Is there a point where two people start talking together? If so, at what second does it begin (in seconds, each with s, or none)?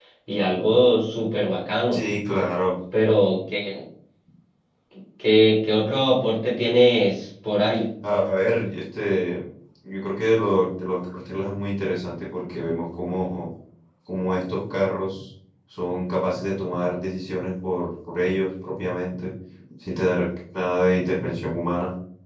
none